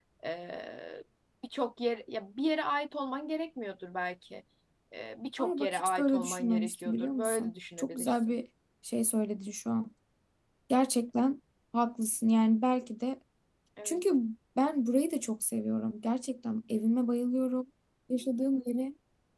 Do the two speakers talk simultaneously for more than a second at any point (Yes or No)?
Yes